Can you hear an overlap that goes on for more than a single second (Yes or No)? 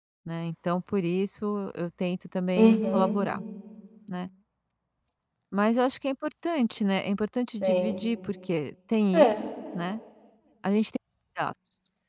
No